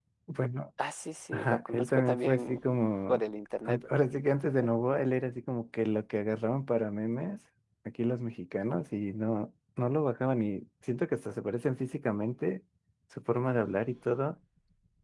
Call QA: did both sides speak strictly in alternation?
No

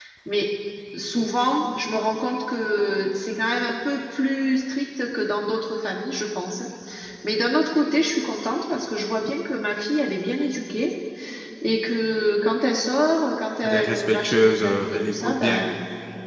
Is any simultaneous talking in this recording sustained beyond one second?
Yes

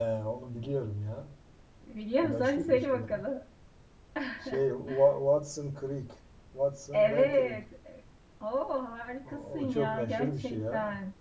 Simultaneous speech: Yes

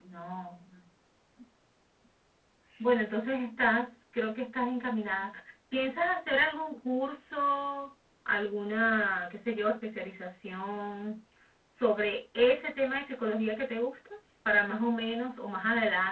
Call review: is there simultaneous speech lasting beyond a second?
No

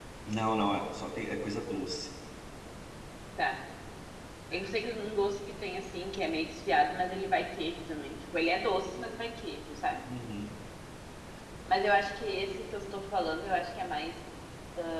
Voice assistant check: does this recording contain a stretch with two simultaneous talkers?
No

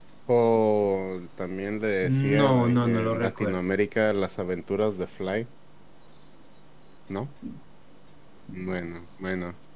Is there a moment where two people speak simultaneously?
Yes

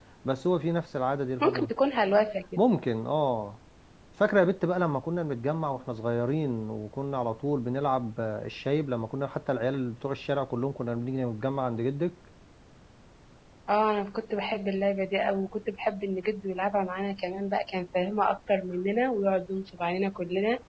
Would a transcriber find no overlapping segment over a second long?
Yes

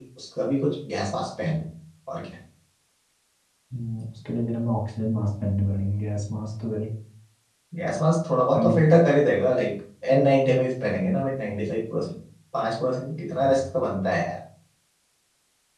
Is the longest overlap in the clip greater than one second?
No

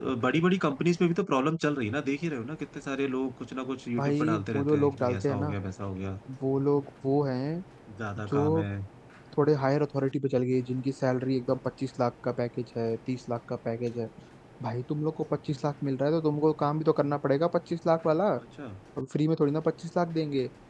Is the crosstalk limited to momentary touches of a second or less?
No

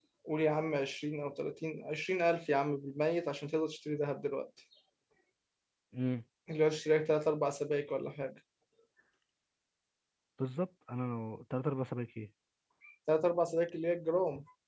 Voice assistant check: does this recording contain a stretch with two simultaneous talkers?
No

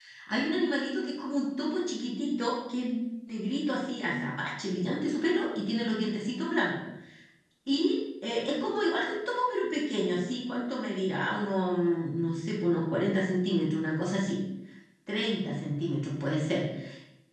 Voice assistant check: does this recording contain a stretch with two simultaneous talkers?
No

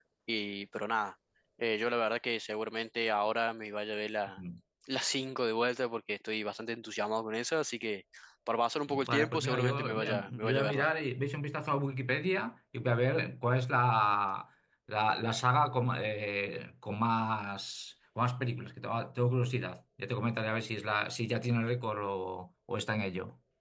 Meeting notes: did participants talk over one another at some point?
Yes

